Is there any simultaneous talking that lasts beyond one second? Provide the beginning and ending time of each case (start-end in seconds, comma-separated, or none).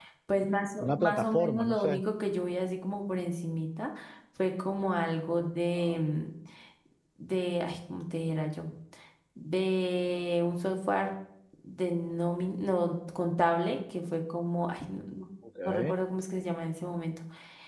0.8-2.0